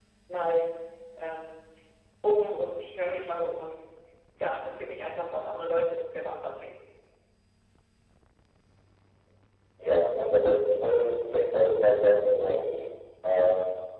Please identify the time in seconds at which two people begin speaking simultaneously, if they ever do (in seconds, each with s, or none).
none